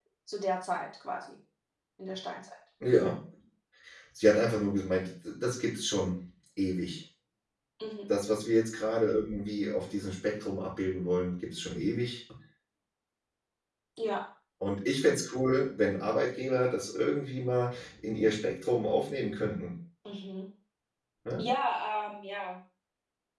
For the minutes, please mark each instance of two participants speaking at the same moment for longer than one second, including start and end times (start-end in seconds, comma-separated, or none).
none